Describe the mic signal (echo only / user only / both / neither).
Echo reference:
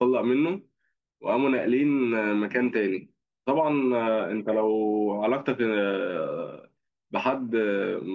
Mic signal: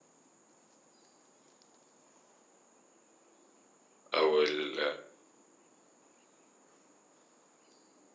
user only